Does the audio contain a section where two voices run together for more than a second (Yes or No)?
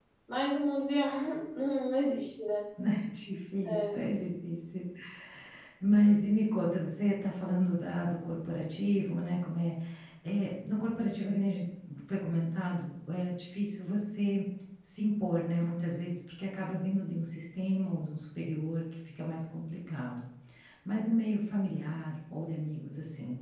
No